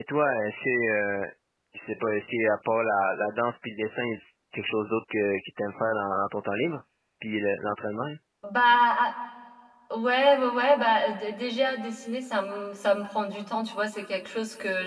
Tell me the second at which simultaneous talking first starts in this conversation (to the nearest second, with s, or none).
none